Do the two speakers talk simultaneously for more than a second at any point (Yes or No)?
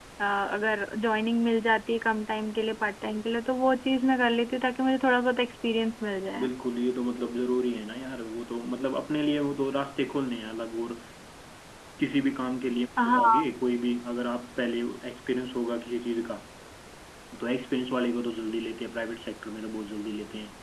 No